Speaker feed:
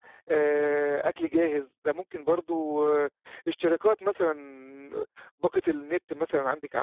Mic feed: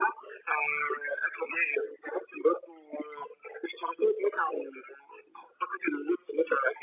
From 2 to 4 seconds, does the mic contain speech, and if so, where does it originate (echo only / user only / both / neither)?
echo only